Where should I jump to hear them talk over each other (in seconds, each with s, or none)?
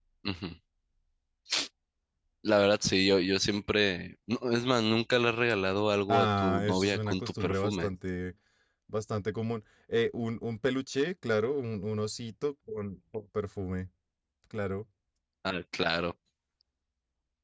6.1 s